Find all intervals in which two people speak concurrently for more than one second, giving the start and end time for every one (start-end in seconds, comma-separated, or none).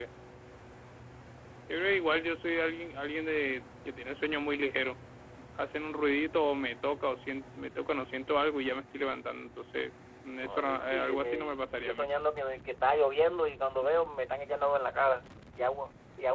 10.4-12.1